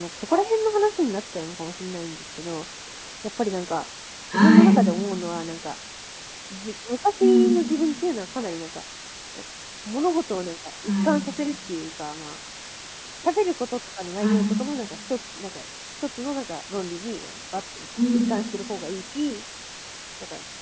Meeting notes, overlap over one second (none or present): none